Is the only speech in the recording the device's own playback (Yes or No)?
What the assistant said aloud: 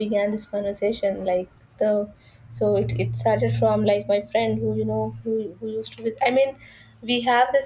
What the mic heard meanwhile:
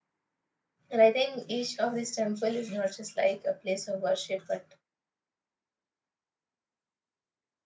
No